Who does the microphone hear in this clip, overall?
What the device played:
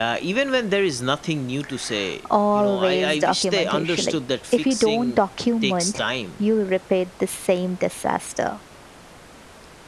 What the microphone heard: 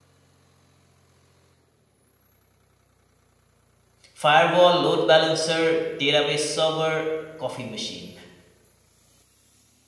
user only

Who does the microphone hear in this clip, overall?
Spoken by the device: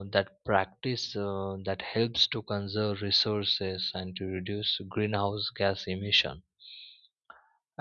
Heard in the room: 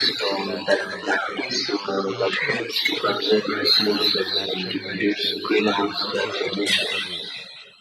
both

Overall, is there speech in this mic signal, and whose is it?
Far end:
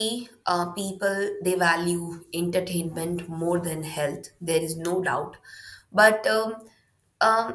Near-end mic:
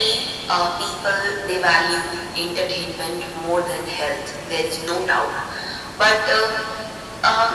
echo only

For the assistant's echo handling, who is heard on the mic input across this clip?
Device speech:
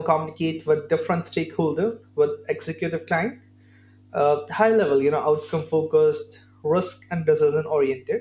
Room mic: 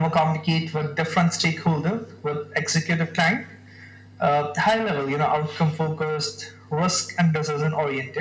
echo only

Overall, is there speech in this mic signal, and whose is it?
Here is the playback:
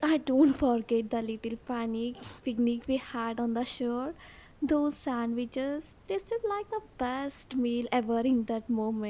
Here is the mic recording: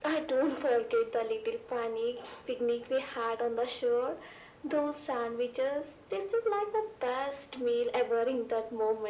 echo only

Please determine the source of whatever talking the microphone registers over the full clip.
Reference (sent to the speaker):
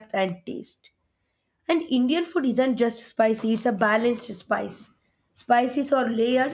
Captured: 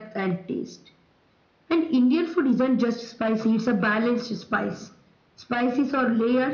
echo only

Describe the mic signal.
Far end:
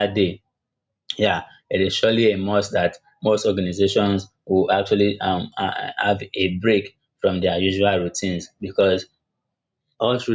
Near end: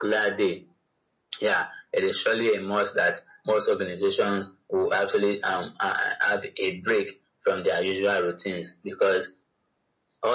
echo only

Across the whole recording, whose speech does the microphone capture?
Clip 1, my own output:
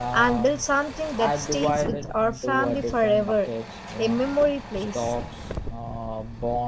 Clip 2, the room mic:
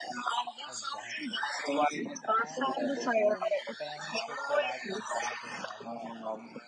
both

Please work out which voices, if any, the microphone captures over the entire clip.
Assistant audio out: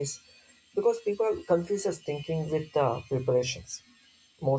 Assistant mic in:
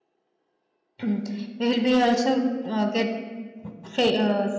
user only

